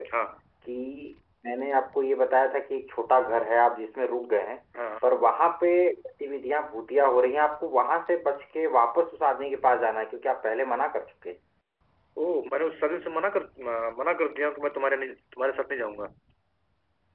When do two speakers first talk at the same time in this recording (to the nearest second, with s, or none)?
none